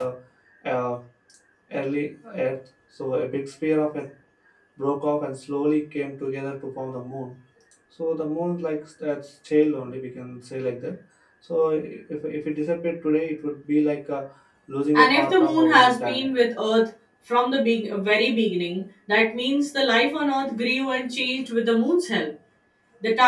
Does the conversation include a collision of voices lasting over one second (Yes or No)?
Yes